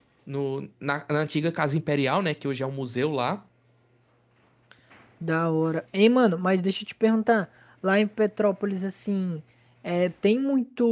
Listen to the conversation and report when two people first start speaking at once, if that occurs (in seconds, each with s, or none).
none